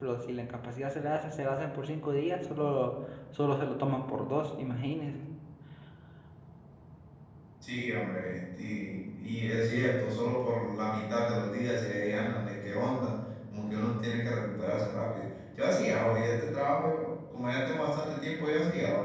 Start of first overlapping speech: none

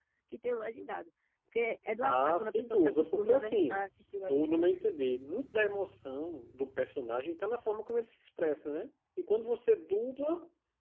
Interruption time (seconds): 2.0 s

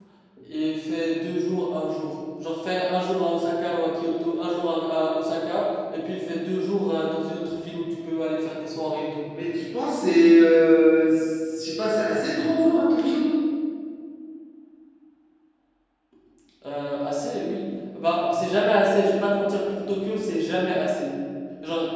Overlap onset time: none

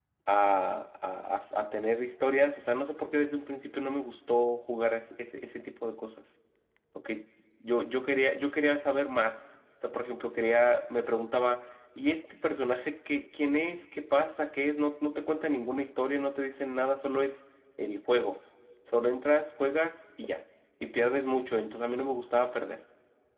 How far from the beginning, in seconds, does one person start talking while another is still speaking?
none

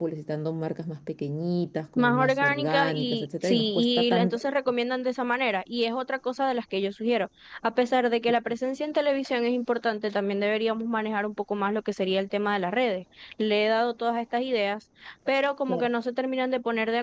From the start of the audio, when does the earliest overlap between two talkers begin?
1.9 s

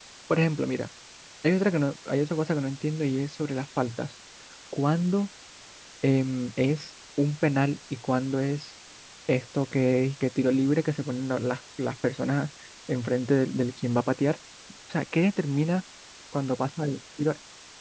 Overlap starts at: none

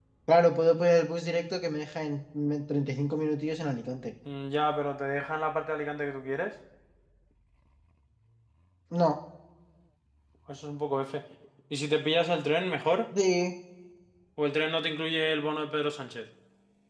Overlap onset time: none

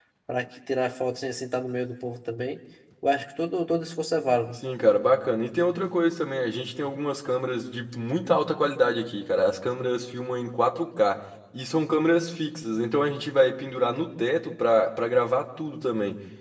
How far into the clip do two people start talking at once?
none

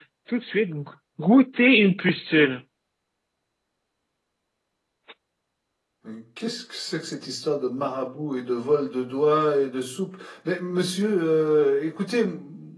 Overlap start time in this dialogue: none

